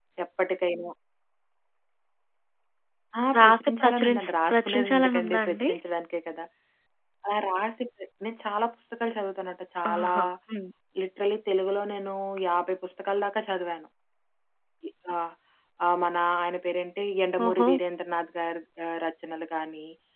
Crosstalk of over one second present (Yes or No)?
Yes